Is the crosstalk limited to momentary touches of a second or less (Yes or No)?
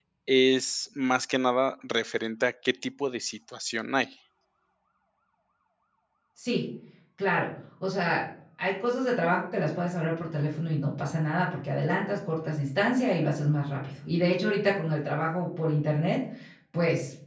Yes